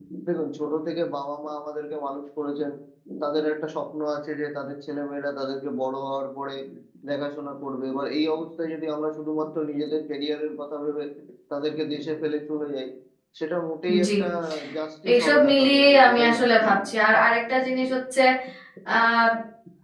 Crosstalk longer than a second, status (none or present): present